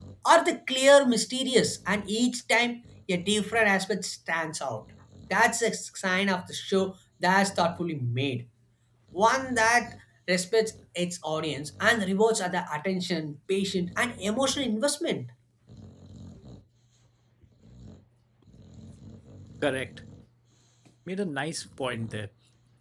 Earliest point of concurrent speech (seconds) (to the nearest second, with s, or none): none